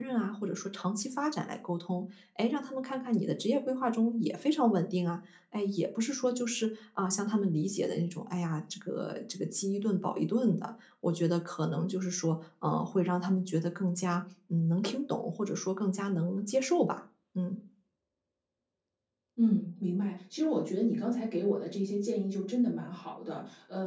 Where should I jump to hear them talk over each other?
none

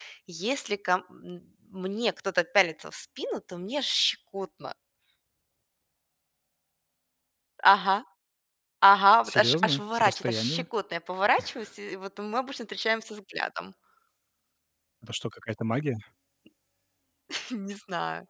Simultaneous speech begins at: 9.2 s

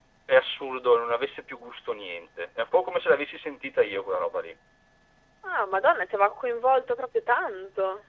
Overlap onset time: none

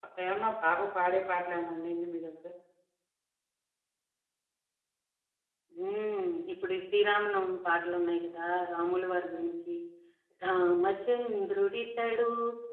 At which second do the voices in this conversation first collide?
none

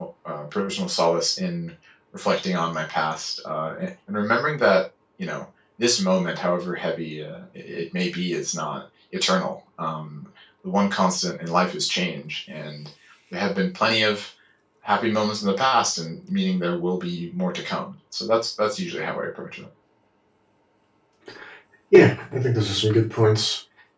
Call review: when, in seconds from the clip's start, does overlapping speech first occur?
none

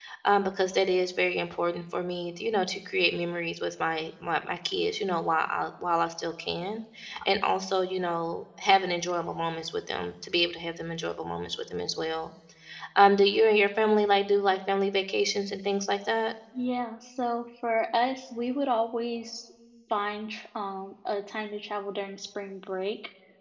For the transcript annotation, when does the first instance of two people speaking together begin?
none

